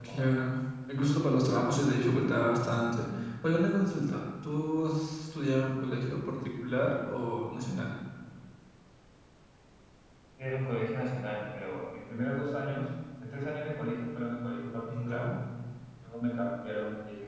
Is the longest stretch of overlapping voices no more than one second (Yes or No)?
Yes